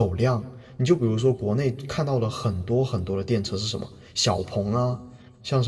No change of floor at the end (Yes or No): Yes